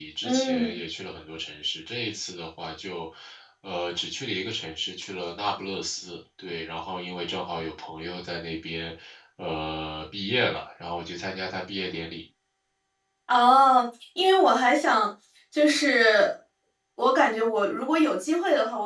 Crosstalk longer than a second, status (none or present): none